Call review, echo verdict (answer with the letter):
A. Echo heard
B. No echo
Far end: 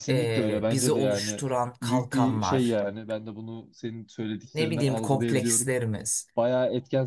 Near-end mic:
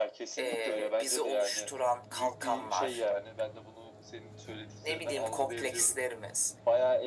A